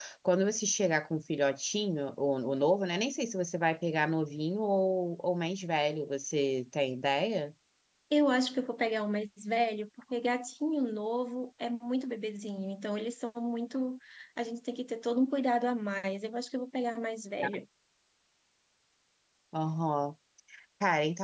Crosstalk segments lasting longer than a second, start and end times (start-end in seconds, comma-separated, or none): none